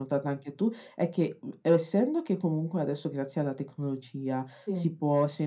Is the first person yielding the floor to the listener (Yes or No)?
No